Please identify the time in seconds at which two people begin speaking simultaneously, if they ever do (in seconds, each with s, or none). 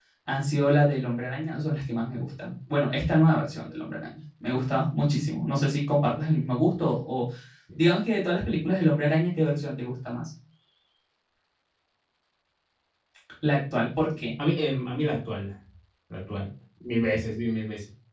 none